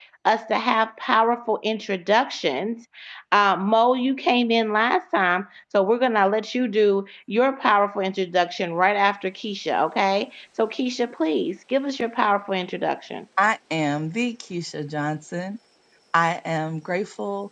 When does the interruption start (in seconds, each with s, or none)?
none